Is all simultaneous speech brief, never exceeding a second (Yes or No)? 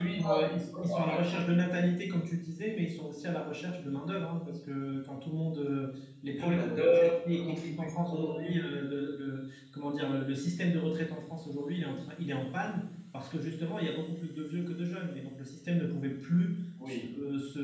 No